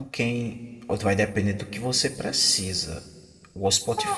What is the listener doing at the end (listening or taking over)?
listening